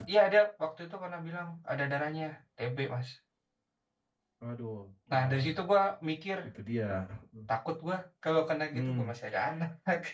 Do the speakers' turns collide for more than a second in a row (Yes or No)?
No